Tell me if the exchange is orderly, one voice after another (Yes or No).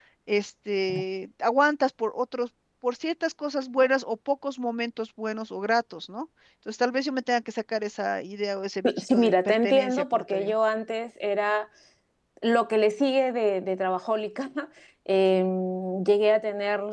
No